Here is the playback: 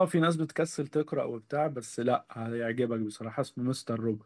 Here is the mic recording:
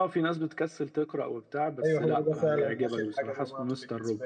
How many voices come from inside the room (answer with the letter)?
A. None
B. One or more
B